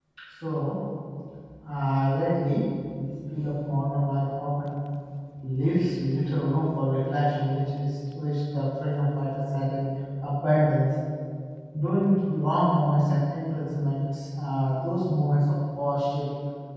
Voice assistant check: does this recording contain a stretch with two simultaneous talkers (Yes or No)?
No